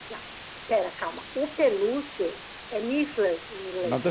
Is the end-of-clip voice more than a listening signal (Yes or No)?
Yes